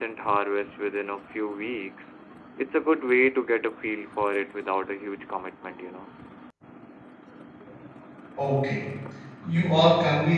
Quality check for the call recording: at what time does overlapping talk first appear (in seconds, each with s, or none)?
none